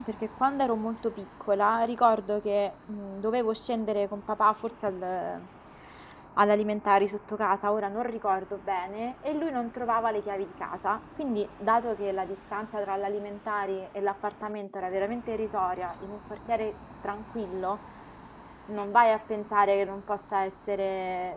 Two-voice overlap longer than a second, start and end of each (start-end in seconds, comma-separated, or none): none